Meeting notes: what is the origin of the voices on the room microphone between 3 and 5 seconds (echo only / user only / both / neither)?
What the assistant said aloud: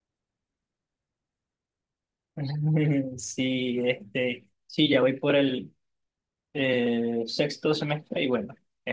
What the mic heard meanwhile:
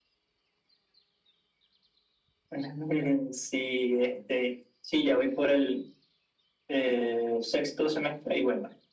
echo only